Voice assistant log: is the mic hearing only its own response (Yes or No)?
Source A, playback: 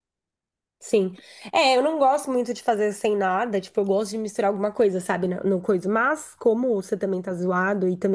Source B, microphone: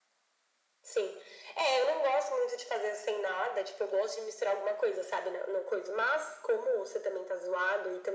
Yes